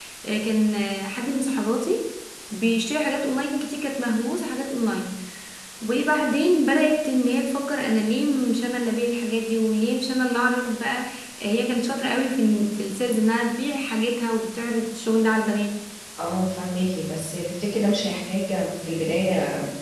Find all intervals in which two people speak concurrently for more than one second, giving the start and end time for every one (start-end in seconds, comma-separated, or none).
none